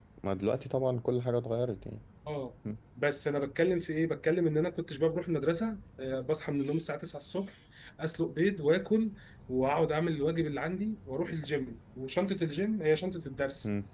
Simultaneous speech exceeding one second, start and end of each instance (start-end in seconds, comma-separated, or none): none